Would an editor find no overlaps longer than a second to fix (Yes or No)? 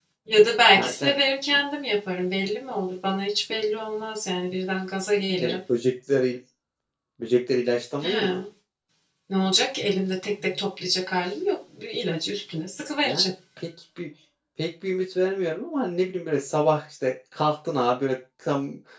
Yes